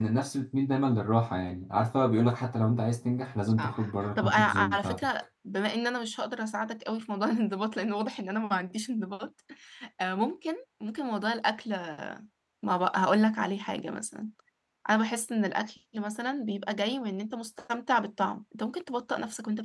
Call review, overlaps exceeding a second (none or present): present